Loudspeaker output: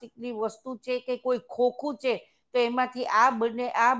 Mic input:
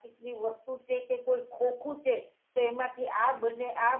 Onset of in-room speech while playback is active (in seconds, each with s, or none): none